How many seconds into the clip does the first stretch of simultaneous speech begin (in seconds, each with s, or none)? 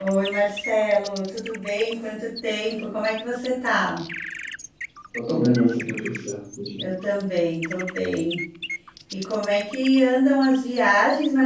none